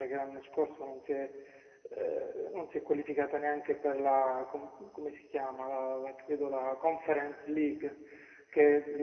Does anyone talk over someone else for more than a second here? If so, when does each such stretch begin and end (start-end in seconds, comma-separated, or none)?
none